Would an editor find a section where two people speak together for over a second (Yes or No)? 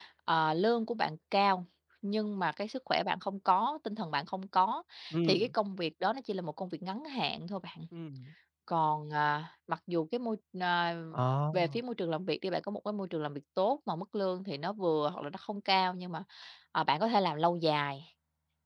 No